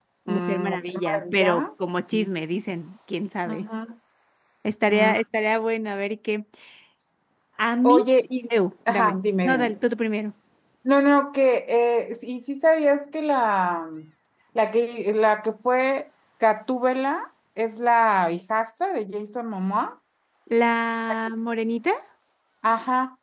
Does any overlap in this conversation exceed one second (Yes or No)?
Yes